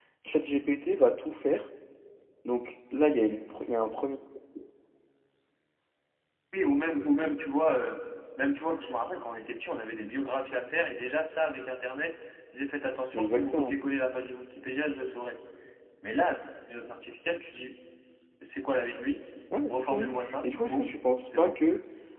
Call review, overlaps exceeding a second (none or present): present